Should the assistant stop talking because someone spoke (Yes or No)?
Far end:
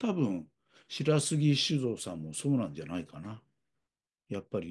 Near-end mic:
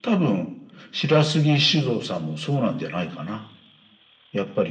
No